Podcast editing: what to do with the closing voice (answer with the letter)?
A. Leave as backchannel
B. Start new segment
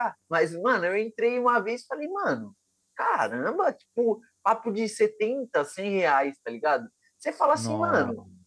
A